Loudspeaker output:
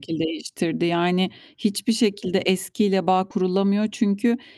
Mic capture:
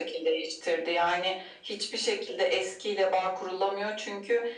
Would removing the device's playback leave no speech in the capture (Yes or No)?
Yes